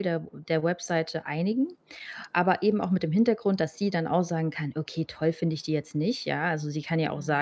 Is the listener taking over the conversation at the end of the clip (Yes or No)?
No